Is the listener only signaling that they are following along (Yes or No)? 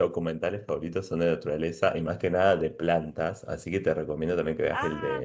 Yes